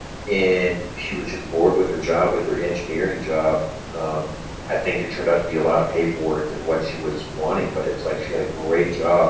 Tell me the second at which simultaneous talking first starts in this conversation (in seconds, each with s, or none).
none